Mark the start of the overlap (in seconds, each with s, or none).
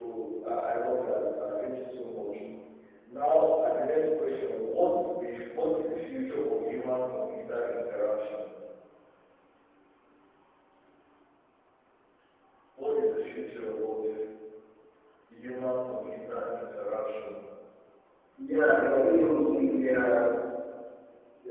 18.7 s